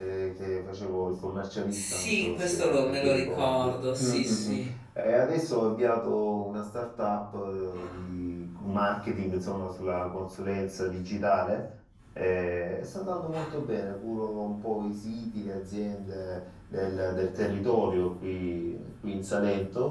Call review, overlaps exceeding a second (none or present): present